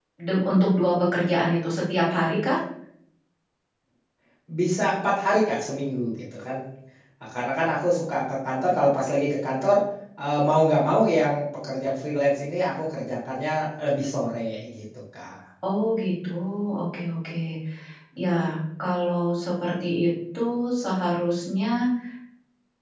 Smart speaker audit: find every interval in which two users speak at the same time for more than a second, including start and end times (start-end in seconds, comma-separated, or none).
none